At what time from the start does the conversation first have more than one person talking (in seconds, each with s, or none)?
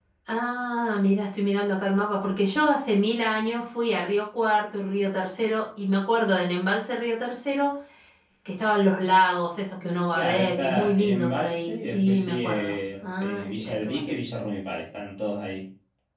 10.1 s